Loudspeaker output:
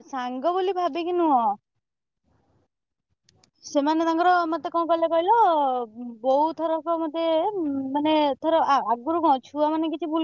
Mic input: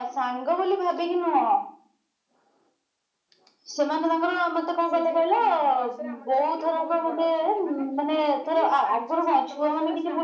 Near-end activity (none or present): present